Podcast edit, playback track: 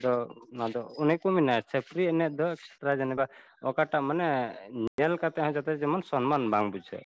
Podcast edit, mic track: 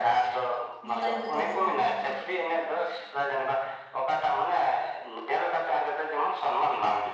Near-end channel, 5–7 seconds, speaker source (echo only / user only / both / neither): echo only